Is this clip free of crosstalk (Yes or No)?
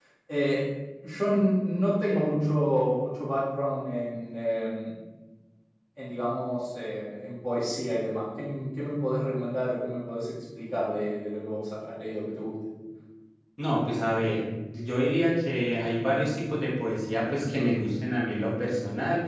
Yes